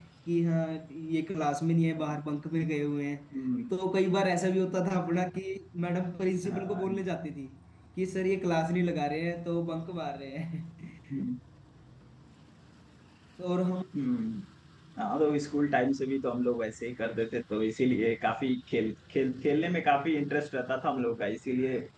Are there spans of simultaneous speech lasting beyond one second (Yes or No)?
No